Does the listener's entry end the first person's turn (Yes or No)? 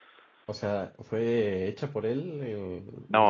Yes